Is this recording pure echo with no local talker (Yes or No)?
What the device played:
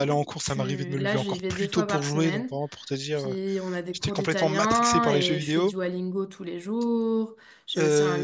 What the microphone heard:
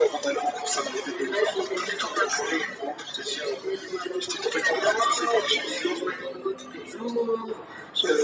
Yes